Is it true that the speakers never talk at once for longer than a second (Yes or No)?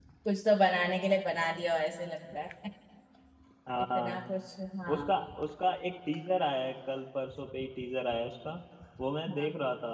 Yes